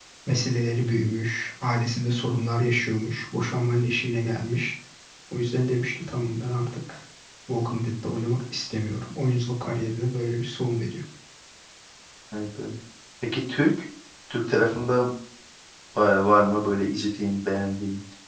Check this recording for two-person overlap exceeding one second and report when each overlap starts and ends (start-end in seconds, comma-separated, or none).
none